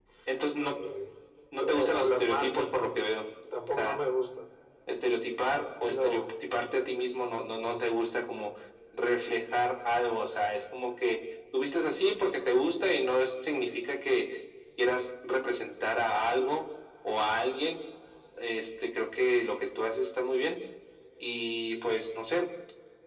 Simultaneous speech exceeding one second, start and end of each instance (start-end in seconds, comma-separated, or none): 1.6-2.9